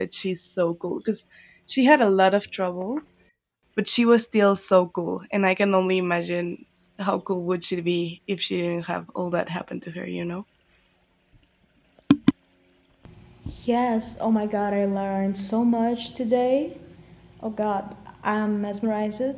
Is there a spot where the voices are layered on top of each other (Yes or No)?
No